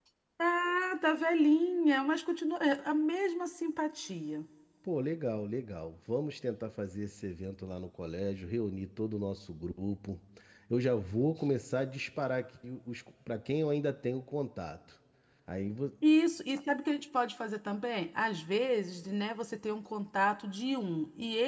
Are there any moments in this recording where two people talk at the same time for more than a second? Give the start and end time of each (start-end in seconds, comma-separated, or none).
none